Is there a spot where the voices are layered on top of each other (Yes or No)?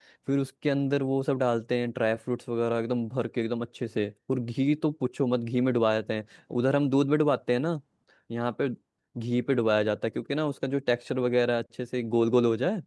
No